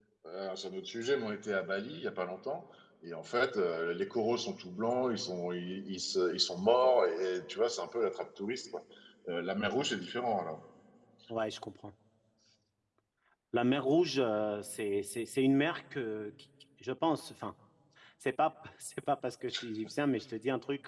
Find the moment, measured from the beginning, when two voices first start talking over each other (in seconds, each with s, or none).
none